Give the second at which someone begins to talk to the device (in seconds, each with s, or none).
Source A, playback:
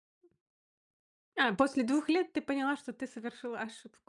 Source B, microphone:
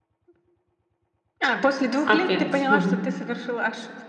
2.0 s